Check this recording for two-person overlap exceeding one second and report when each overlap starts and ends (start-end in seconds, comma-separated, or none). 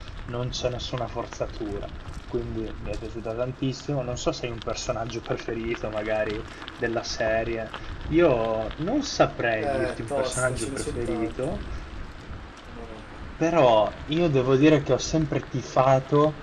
9.6-11.5